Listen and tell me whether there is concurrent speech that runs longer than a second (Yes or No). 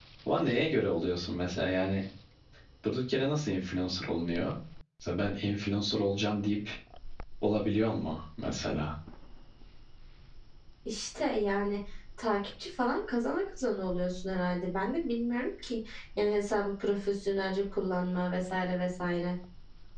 No